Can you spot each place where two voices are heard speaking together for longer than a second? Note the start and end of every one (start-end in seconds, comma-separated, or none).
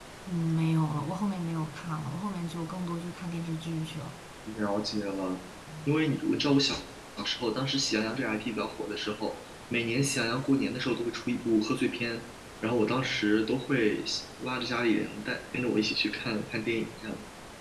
none